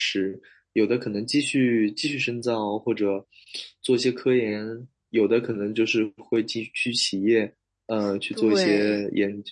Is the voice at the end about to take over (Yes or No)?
No